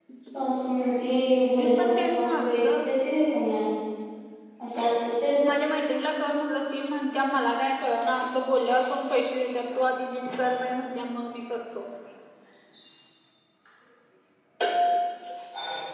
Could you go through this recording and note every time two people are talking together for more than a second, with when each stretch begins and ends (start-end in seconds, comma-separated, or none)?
1.6-2.8